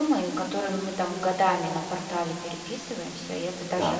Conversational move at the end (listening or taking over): listening